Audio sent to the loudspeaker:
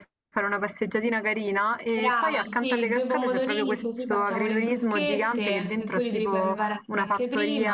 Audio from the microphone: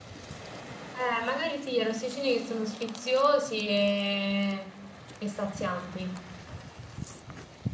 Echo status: none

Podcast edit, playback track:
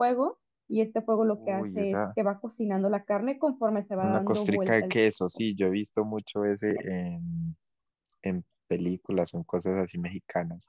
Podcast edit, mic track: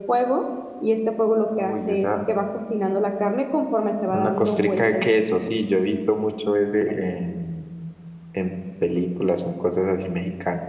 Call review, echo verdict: present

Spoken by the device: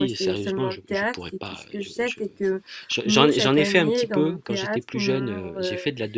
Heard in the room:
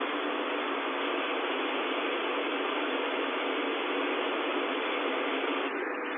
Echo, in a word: none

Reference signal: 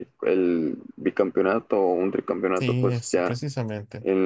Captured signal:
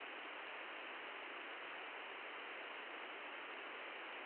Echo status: none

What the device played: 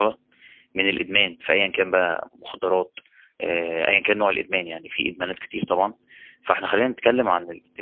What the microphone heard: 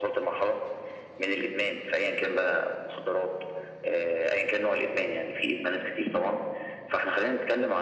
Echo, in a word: present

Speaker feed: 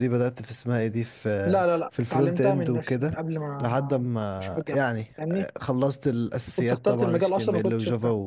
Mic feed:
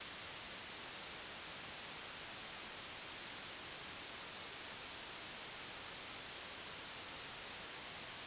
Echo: none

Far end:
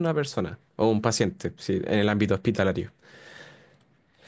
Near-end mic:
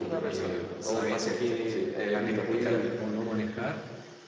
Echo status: present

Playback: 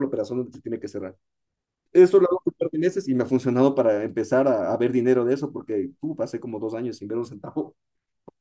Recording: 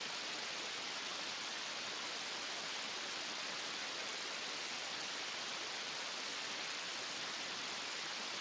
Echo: none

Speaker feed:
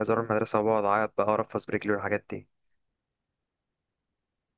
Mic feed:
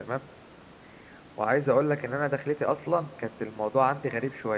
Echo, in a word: none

